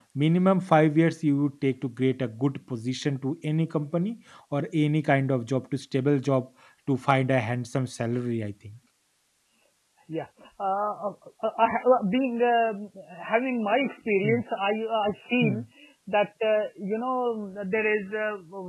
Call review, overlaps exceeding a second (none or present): none